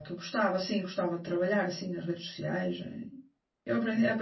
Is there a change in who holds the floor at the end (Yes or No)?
No